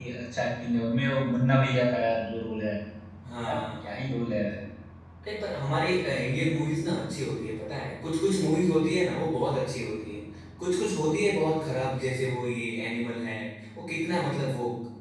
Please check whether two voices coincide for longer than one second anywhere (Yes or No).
No